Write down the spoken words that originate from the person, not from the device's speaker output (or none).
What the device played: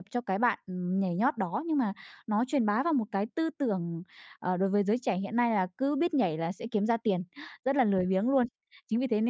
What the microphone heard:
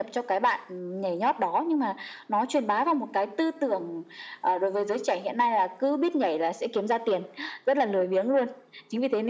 none